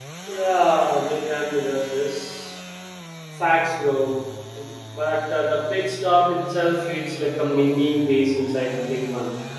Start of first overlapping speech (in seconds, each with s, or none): none